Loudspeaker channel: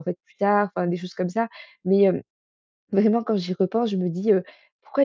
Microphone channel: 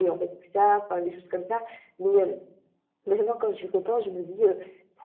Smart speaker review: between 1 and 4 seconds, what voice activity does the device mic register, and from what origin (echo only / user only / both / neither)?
echo only